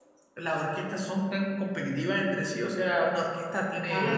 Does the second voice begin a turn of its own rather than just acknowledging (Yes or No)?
No